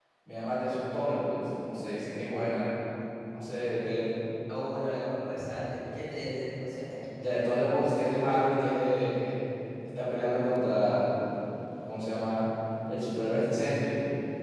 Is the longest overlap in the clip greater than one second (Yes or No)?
No